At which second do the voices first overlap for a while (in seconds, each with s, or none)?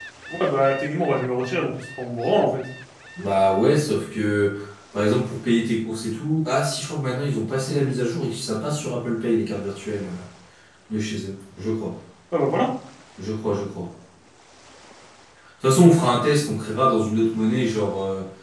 none